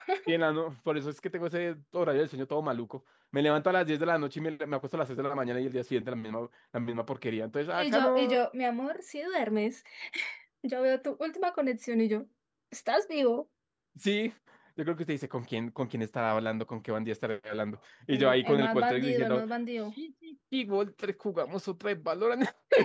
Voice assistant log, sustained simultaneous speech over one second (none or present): present